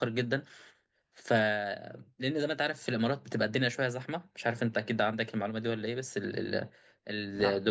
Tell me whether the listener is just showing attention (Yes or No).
Yes